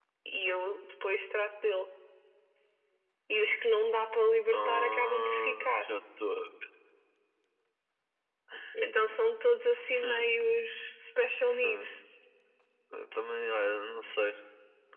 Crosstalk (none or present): present